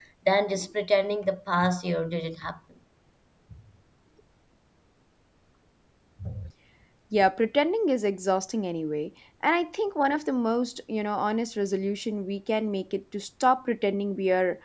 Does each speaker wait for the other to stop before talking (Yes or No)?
Yes